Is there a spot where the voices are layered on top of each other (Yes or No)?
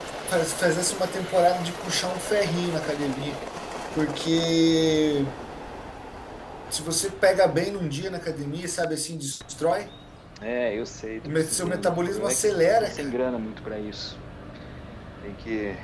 Yes